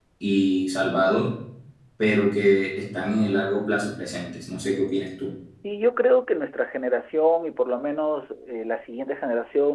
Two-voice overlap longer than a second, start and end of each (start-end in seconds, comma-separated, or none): none